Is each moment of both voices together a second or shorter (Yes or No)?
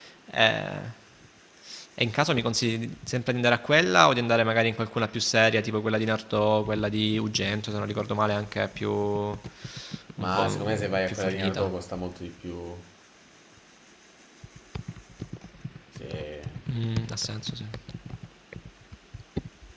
No